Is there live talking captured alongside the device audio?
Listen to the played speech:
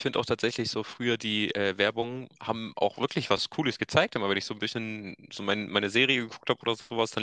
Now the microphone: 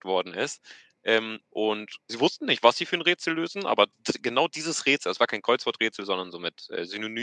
Yes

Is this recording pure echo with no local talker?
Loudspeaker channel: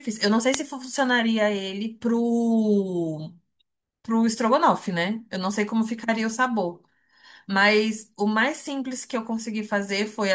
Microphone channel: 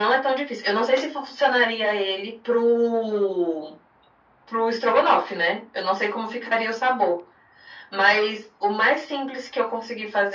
Yes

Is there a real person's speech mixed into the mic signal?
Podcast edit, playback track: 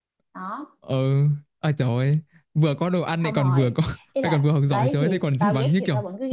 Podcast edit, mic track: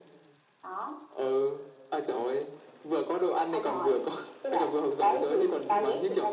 No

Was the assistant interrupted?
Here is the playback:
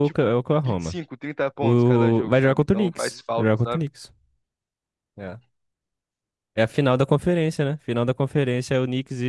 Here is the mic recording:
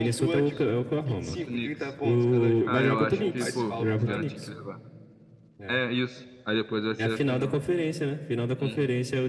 Yes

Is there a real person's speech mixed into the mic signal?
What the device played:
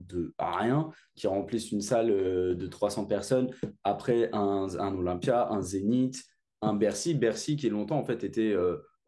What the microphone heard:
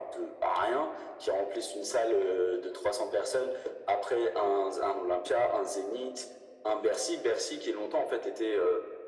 No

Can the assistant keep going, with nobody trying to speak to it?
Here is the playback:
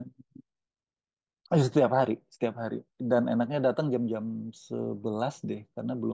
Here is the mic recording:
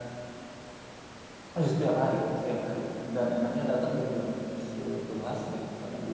Yes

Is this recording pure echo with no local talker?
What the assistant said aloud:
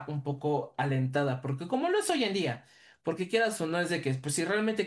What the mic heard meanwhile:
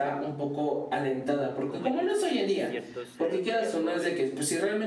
No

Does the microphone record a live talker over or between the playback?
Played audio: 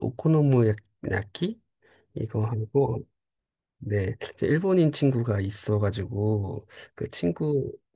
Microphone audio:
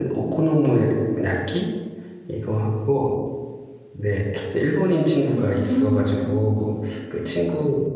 Yes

